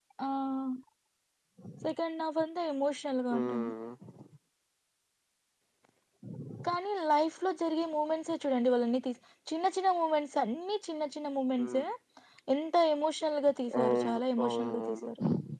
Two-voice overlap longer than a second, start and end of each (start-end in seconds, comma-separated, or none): 13.8-15.1